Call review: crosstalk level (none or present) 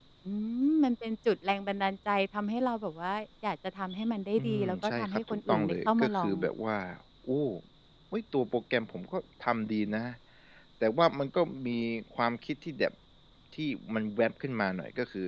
present